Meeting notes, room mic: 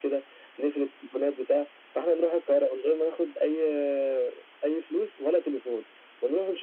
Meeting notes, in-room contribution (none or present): none